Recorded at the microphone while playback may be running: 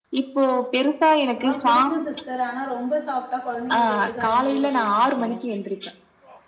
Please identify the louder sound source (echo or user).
echo